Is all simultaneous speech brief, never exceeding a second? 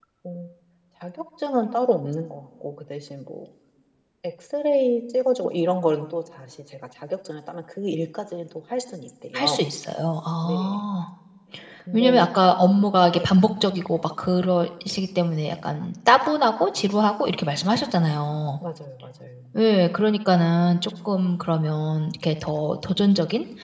Yes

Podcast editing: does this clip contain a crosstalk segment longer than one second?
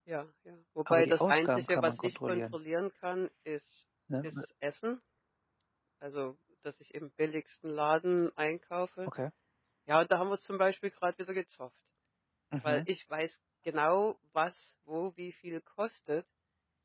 Yes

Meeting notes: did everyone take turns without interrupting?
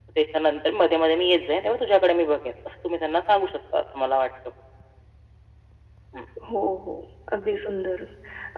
Yes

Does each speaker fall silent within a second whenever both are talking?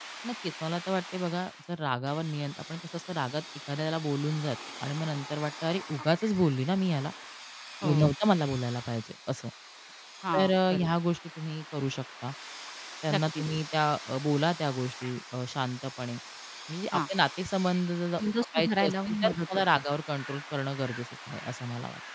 No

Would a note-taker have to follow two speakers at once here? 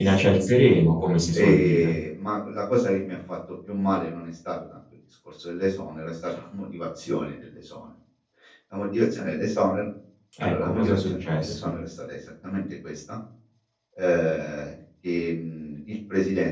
Yes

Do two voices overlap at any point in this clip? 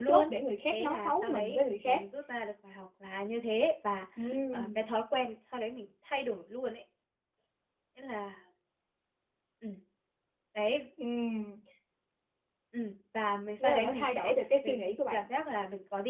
Yes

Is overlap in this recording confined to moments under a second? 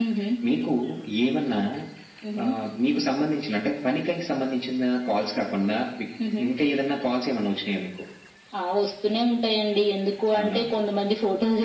Yes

